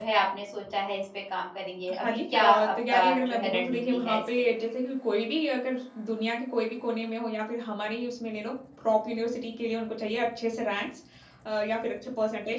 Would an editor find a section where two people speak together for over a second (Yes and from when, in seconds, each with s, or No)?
Yes, from 1.9 s